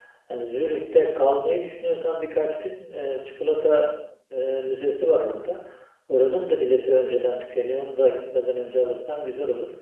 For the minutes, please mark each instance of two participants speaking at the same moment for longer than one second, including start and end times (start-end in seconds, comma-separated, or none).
none